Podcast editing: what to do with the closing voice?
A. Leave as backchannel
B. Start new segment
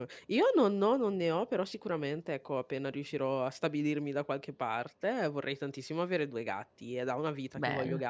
A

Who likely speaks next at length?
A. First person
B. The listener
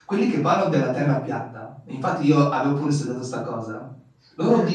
A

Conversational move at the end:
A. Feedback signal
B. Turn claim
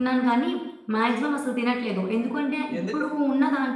A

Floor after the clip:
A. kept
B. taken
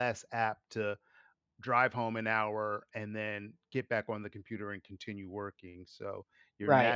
B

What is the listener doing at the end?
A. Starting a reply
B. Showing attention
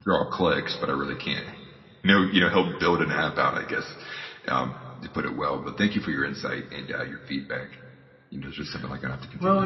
A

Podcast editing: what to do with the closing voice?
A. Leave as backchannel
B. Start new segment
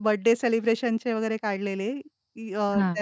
A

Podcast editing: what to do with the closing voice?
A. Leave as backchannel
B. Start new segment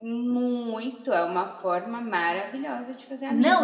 B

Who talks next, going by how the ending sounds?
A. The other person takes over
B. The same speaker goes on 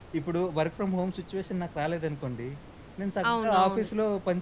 B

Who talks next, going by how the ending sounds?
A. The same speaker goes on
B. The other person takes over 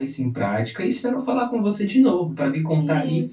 B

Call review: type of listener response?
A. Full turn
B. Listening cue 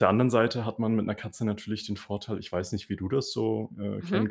B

